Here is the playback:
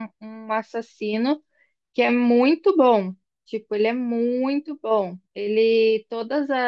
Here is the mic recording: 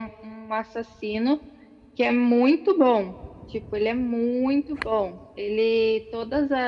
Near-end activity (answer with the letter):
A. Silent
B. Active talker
A